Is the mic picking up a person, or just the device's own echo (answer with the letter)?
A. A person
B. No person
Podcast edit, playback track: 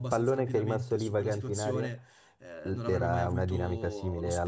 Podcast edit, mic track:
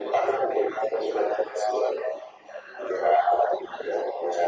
B